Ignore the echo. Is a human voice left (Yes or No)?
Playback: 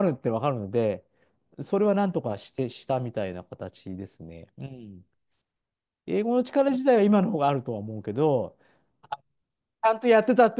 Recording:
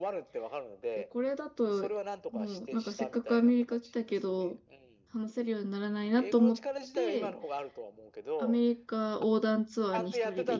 Yes